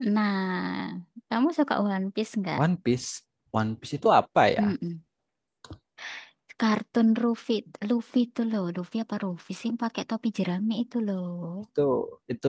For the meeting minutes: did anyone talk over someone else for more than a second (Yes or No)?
No